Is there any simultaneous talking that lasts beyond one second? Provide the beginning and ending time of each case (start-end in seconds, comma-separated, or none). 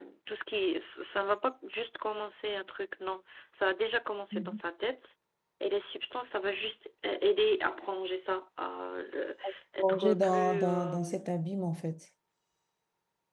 9.8-11.0